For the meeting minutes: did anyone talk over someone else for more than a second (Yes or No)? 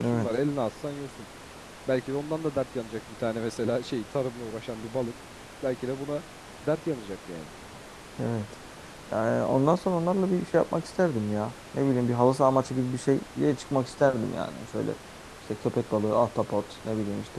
No